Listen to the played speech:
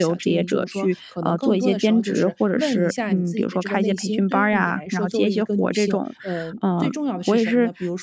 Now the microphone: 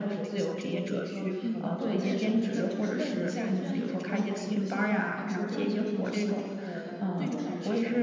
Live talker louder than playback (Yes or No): No